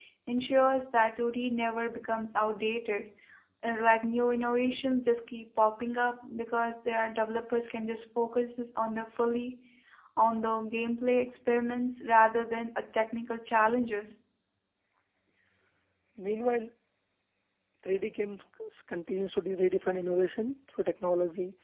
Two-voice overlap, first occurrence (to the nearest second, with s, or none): none